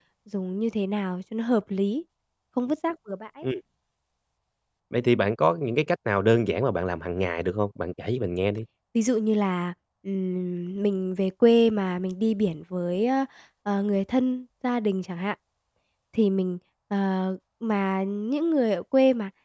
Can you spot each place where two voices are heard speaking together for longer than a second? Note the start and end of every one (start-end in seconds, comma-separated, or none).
none